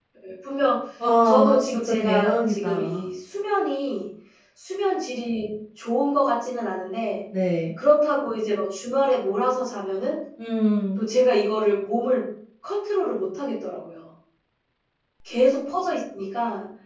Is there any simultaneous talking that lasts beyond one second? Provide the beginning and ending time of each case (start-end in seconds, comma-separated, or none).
1.2-3.0